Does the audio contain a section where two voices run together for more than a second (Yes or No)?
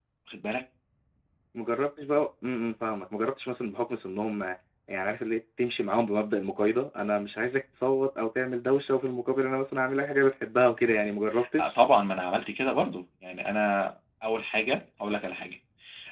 No